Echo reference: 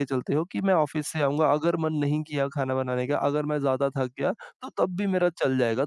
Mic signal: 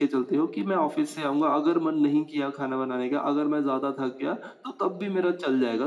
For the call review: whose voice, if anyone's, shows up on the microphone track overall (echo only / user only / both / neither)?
echo only